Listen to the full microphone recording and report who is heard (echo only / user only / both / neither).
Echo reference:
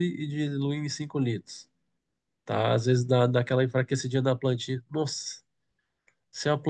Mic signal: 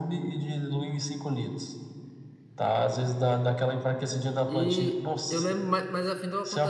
both